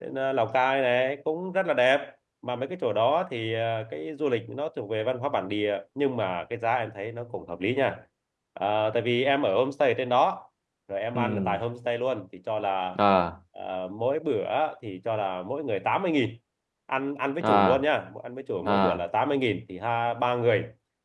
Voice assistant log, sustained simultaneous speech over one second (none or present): none